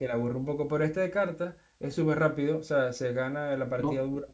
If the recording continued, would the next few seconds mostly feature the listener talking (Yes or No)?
No